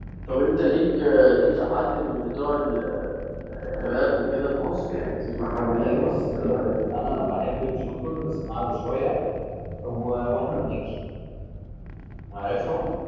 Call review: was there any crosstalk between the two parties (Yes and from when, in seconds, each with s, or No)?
Yes, from 5.5 s